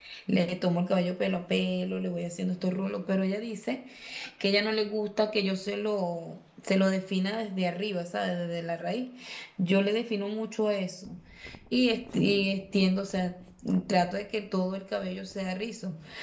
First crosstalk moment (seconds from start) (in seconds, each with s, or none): none